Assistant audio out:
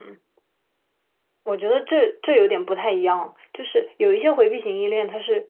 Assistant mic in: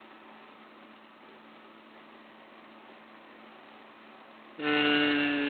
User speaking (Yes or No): Yes